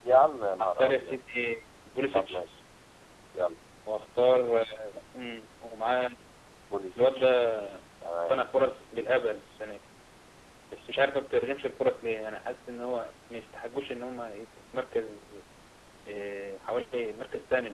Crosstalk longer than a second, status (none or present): none